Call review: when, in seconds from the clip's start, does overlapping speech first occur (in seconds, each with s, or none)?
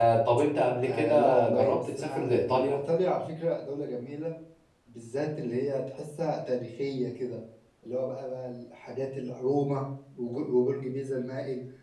0.8 s